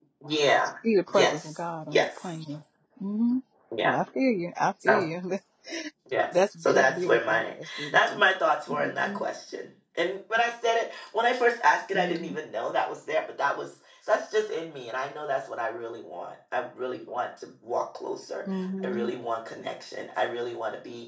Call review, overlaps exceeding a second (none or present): present